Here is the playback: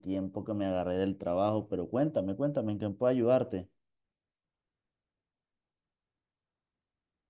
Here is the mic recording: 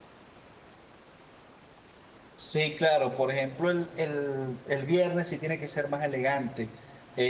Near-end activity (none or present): present